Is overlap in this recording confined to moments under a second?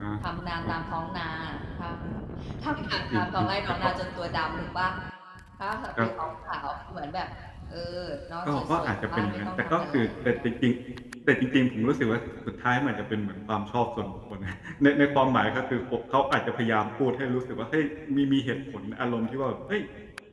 No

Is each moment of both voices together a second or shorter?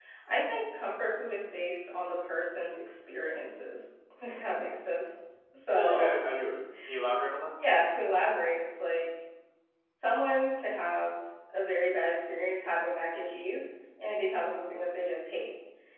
Yes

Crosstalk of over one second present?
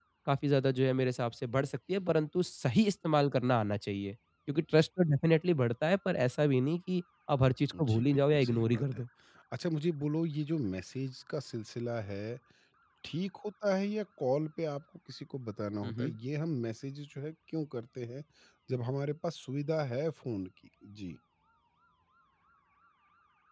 Yes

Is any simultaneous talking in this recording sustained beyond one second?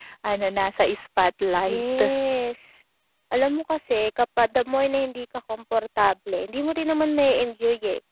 No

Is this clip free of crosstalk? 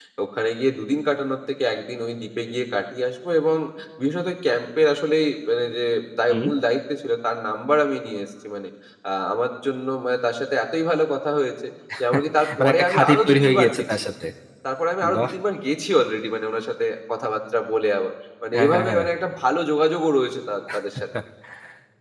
No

